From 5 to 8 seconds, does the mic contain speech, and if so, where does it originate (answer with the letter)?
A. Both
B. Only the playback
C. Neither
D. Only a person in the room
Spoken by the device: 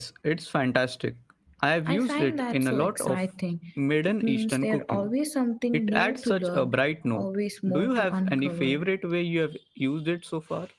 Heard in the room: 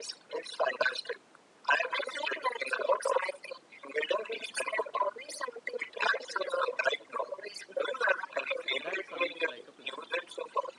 B